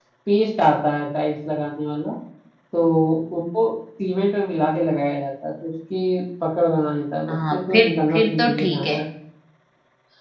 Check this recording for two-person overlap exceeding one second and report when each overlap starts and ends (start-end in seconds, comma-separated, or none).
7.3-8.9